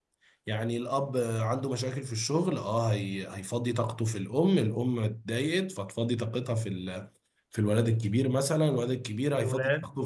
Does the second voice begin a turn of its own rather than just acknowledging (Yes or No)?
No